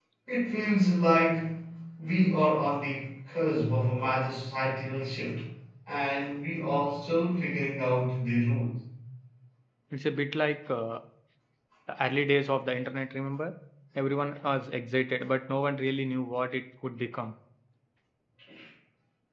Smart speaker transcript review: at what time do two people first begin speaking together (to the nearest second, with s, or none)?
none